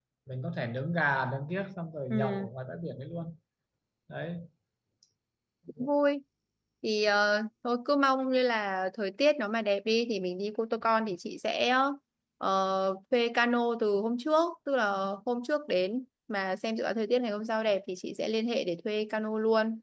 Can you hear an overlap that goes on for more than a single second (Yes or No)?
No